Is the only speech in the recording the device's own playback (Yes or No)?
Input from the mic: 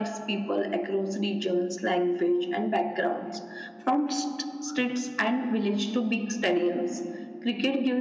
Yes